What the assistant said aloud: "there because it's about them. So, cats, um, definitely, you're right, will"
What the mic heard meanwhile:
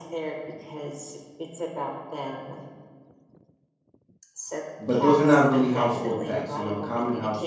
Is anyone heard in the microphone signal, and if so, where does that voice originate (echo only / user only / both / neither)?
both